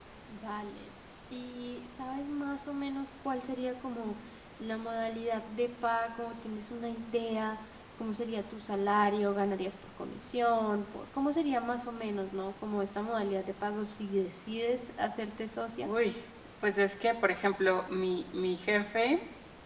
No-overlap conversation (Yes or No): Yes